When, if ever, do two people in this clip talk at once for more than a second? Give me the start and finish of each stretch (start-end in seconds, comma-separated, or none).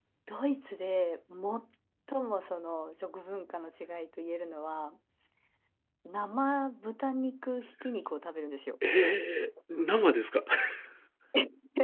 none